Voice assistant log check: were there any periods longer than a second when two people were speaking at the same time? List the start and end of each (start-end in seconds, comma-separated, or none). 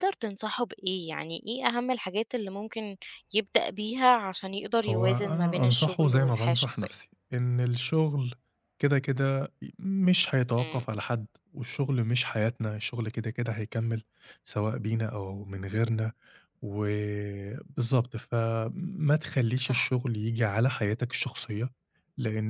4.9-6.9